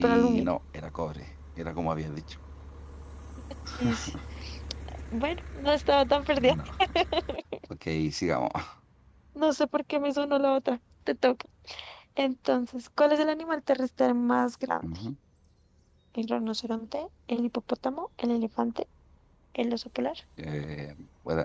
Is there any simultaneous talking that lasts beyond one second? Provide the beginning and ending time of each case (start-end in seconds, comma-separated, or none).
none